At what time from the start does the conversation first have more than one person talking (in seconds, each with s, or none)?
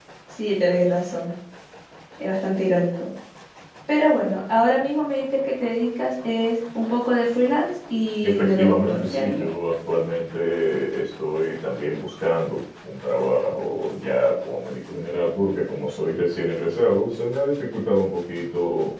8.2 s